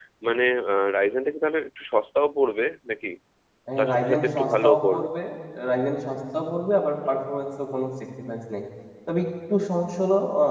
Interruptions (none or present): present